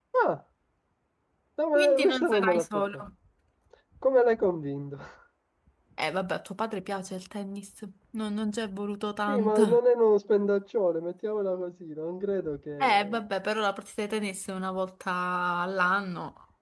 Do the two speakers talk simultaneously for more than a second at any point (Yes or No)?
Yes